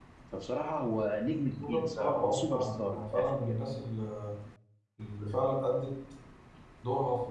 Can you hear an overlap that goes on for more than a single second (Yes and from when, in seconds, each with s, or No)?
Yes, from 1.6 s